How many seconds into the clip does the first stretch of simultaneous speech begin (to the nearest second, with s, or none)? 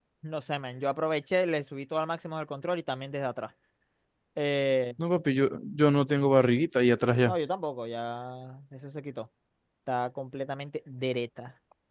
none